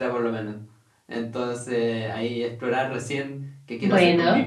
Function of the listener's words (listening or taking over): listening